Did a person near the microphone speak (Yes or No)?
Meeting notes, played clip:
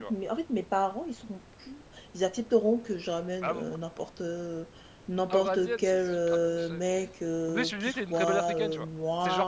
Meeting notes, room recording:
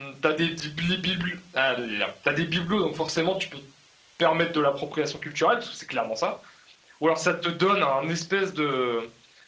Yes